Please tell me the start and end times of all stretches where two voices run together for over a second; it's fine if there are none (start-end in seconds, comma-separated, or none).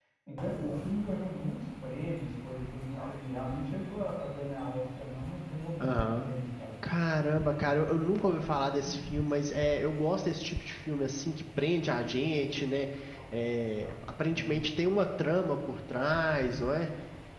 none